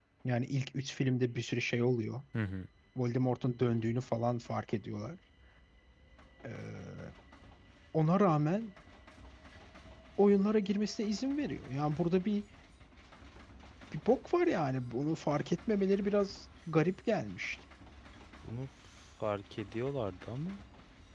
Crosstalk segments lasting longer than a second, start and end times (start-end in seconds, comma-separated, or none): none